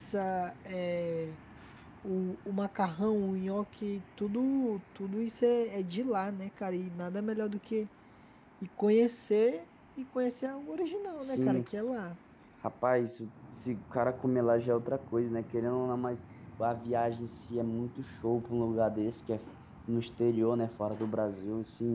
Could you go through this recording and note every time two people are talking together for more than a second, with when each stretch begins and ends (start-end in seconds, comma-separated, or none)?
none